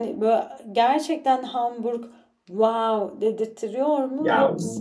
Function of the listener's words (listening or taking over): taking over